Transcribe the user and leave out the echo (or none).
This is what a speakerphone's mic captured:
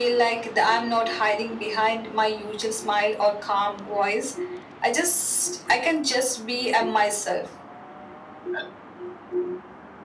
none